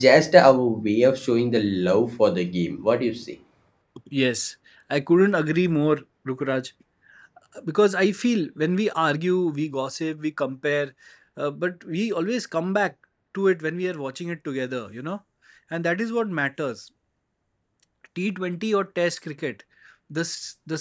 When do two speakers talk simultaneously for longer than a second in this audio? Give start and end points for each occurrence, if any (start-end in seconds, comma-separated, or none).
none